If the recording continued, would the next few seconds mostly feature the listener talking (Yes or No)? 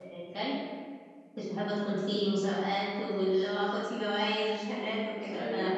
No